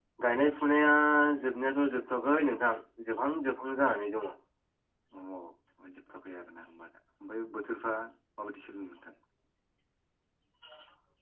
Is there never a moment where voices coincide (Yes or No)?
Yes